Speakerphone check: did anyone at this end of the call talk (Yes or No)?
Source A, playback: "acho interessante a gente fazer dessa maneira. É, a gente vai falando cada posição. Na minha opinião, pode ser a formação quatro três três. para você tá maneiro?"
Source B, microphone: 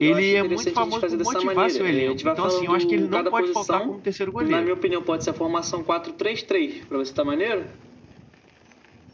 Yes